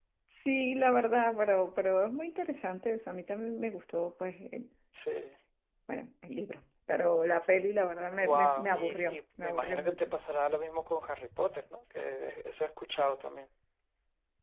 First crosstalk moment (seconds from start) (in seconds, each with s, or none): 8.2 s